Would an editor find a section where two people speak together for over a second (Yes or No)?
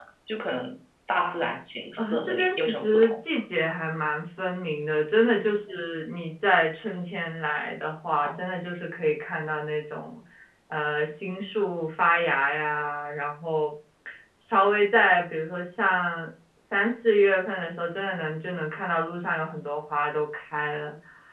Yes